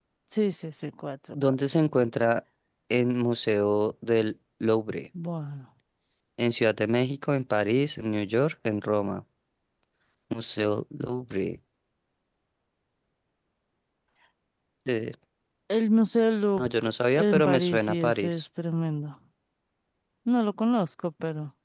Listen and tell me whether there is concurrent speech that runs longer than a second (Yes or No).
Yes